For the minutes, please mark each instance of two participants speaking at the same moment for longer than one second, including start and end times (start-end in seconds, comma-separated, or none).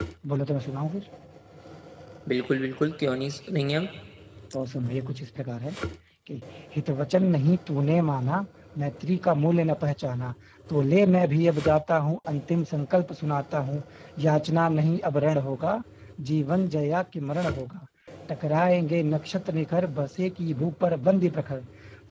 none